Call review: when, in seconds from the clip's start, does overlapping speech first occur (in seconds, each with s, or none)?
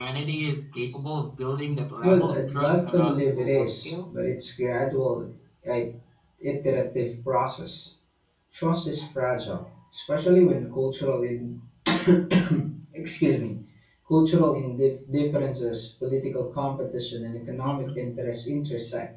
2.0 s